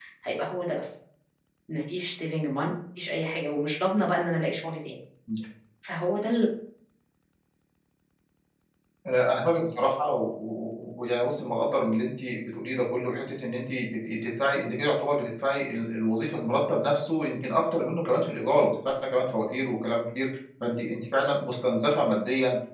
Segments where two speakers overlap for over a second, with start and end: none

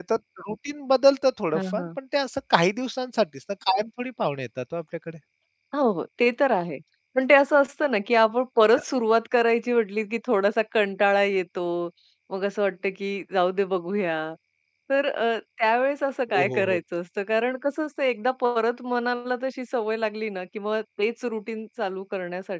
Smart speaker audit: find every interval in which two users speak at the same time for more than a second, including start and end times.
none

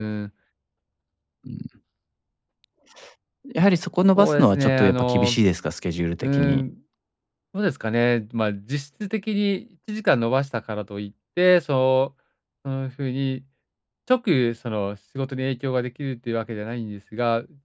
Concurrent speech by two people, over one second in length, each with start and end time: 4.2-5.4

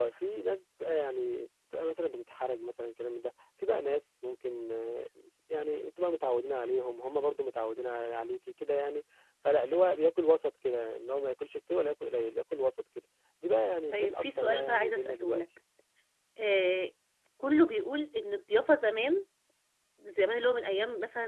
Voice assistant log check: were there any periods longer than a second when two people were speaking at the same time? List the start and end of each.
13.9-15.4

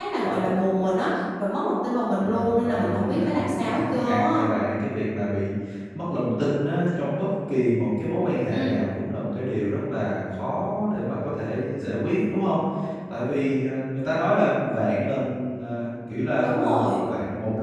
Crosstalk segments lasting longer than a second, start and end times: 2.2-4.3

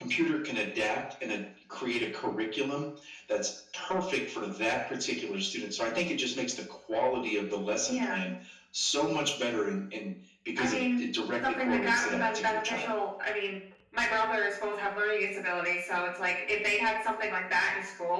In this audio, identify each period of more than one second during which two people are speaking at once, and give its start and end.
11.4-12.9

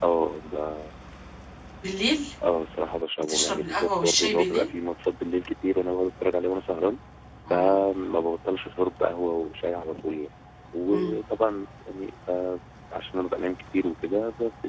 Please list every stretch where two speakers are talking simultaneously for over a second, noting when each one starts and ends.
3.2-4.7

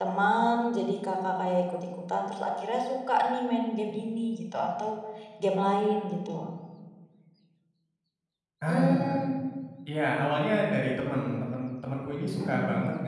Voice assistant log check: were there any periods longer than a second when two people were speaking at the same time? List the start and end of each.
none

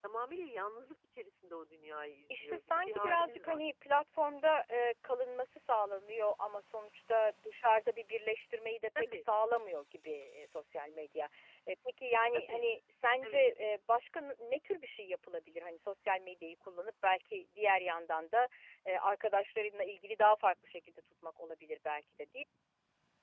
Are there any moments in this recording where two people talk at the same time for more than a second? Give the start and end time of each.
2.4-3.6

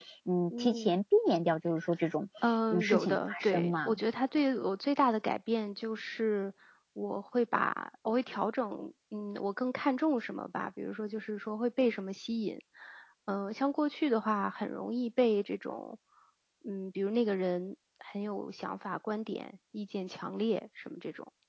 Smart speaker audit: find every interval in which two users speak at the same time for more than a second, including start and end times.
2.7-4.0

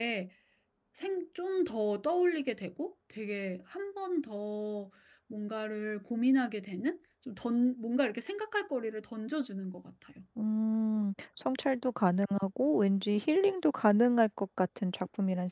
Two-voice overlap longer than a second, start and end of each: none

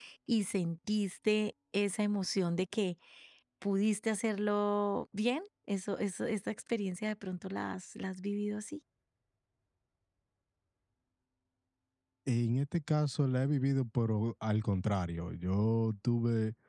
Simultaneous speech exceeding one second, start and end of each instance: none

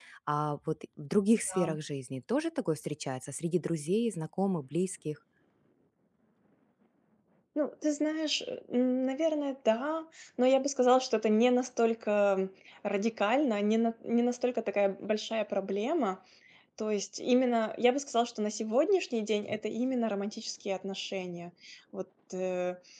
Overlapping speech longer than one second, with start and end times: none

